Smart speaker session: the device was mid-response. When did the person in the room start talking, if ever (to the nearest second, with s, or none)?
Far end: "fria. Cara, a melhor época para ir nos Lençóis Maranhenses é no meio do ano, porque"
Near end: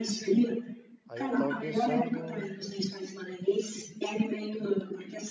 1 s